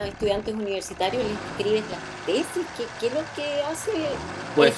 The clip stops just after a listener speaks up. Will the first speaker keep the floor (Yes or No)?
No